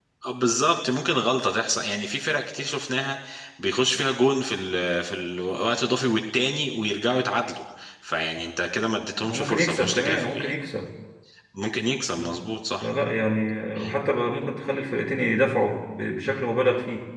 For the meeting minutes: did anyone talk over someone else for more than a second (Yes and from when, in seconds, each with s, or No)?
Yes, from 9.2 s